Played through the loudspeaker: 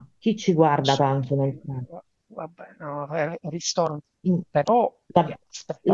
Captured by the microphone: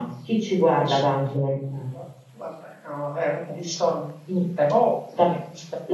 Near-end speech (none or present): none